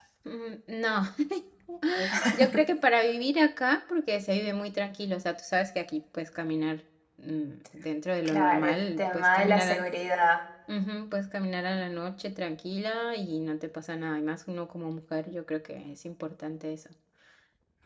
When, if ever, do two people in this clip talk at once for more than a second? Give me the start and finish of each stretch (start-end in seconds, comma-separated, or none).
8.2-9.9